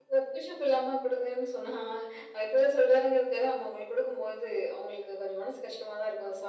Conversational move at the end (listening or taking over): taking over